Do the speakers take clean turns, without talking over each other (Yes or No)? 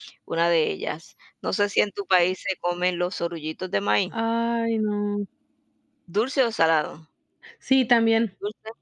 Yes